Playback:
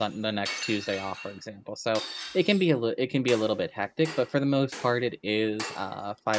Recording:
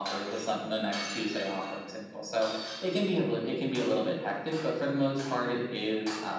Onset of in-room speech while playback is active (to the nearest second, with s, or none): none